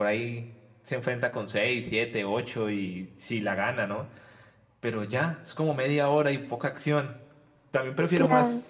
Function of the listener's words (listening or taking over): listening